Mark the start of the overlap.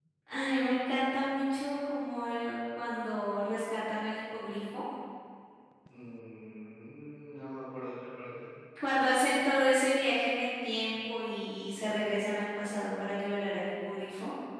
none

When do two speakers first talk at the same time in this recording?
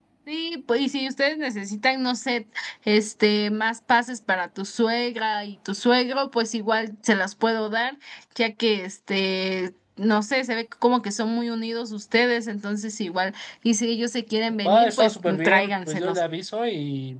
14.7 s

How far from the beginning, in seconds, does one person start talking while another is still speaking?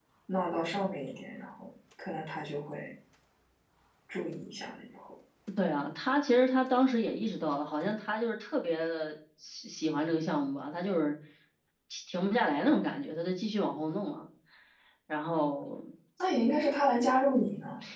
none

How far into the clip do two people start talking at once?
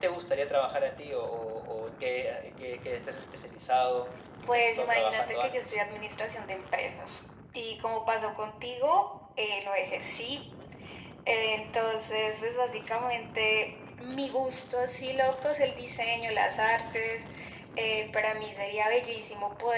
4.5 s

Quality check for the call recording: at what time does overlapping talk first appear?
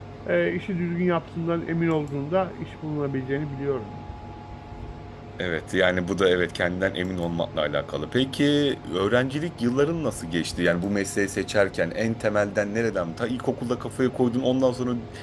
none

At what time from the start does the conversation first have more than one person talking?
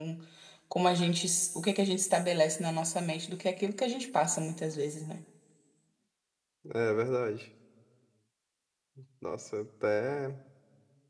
none

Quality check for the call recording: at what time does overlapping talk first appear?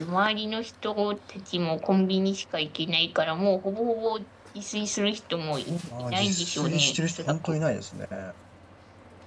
5.9 s

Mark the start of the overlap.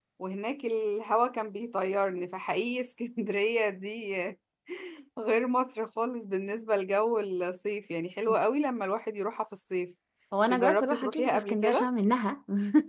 10.5 s

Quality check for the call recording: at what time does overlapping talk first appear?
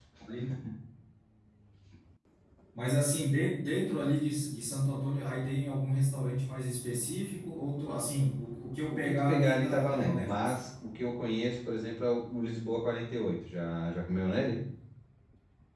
8.9 s

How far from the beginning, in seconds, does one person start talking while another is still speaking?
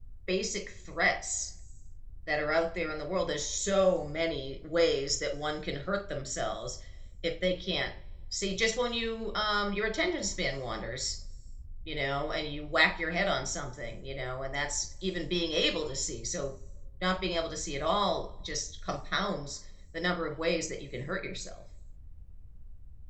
none

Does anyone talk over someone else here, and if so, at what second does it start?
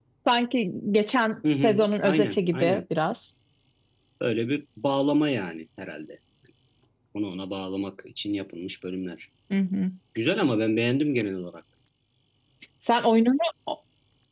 1.4 s

